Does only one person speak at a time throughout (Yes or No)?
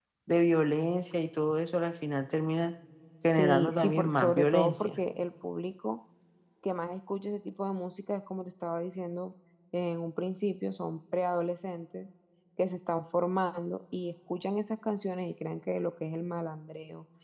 No